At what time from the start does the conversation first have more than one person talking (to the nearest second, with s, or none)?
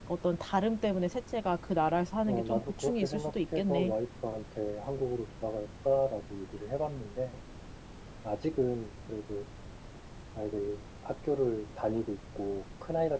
2 s